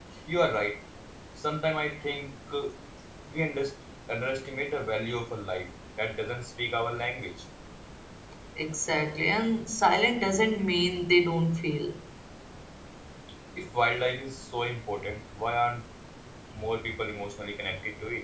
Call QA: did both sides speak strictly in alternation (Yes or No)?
Yes